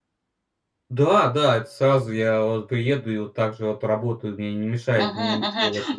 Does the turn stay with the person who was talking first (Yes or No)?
No